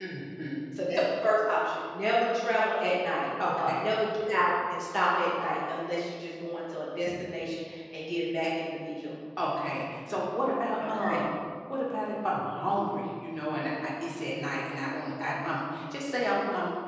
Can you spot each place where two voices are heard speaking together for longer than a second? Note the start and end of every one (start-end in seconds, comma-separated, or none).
none